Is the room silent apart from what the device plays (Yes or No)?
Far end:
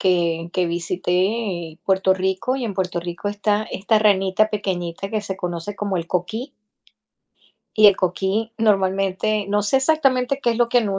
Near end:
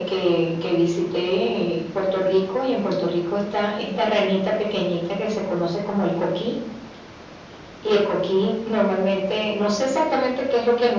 Yes